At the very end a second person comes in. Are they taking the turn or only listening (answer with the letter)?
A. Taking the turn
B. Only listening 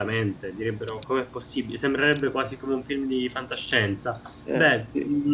B